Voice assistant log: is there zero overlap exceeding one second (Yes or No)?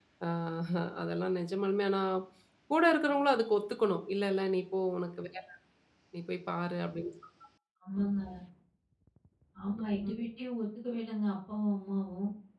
Yes